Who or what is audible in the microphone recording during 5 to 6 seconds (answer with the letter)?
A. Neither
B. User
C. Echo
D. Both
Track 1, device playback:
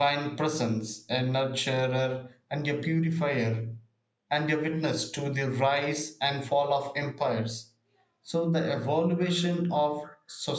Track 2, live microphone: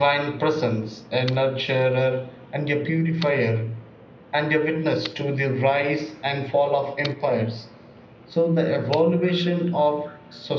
C